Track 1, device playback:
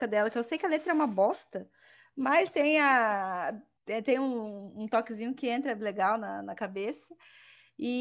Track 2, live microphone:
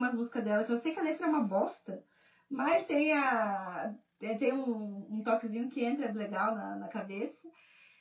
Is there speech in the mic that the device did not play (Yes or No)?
No